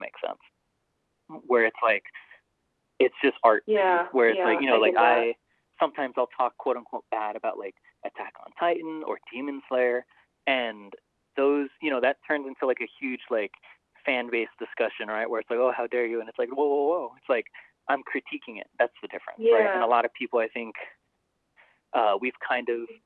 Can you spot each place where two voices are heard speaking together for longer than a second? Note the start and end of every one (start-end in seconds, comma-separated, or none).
3.7-5.3